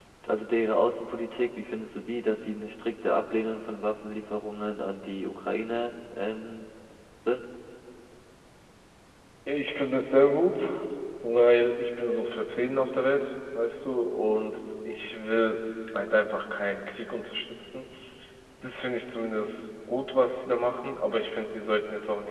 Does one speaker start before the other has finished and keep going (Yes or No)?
No